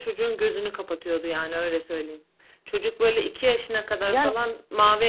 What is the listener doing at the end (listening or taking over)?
listening